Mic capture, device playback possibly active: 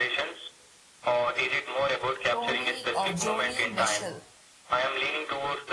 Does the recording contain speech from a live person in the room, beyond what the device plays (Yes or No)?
Yes